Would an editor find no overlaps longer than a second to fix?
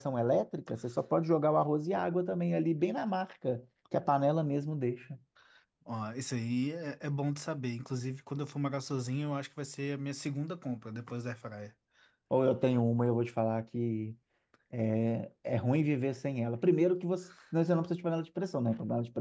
Yes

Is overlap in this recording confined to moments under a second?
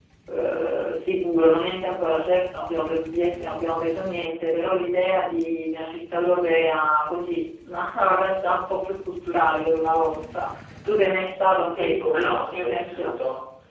No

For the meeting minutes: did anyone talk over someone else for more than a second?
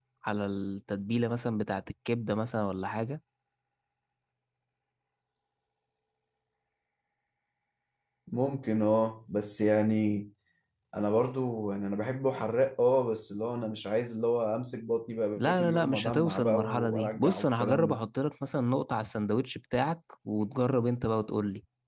Yes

